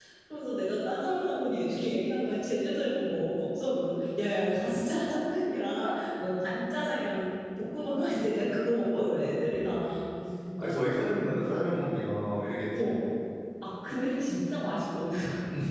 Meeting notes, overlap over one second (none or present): present